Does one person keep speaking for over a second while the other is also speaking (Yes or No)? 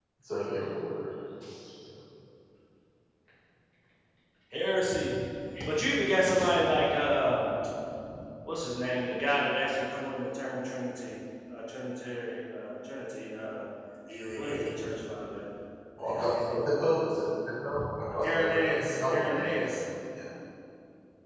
Yes